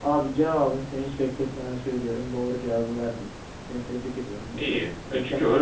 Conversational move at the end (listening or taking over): taking over